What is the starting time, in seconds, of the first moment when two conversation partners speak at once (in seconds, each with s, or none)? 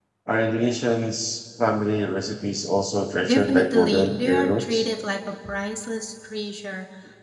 3.2 s